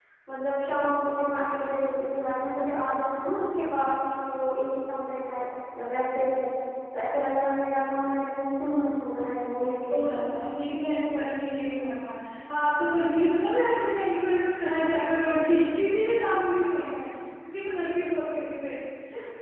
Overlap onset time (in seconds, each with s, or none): none